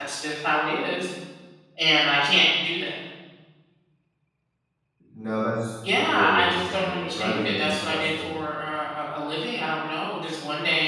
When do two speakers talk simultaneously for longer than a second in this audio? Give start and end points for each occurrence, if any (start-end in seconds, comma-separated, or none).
6.1-8.3